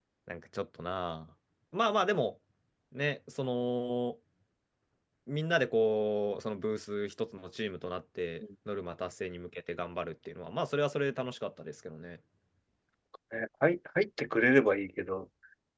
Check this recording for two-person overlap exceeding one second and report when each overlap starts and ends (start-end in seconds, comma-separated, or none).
none